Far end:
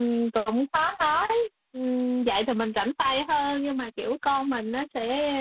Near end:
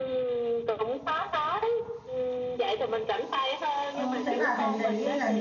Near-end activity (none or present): present